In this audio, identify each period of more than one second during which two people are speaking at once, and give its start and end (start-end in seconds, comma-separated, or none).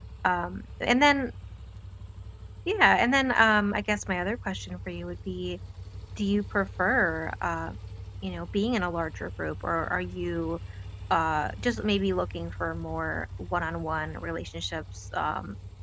none